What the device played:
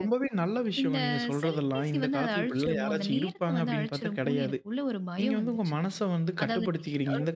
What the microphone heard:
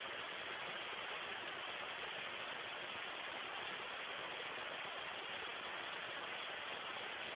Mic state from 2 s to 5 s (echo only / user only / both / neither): neither